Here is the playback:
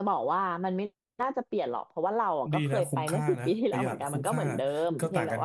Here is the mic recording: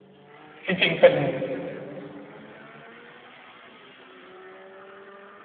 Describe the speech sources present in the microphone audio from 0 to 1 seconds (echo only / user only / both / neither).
user only